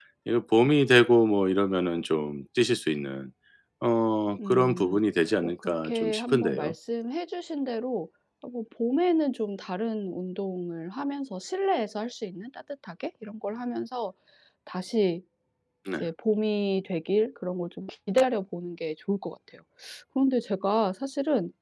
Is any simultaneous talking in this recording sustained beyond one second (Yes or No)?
Yes